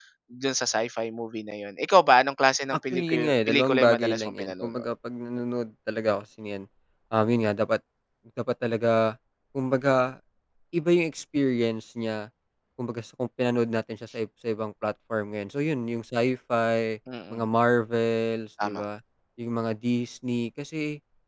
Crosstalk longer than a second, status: present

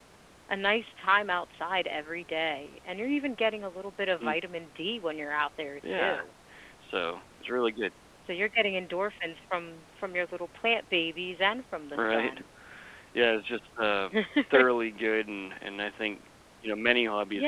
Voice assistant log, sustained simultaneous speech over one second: none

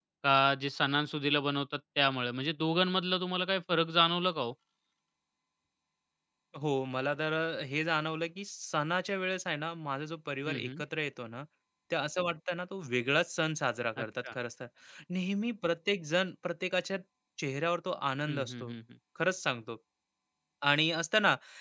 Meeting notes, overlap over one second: none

